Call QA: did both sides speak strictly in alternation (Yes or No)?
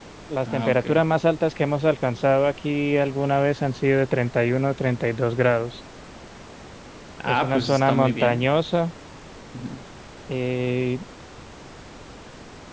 No